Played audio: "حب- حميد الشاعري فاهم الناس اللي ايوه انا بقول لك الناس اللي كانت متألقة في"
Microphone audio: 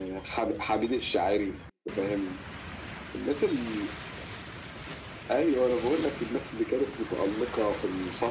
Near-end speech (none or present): none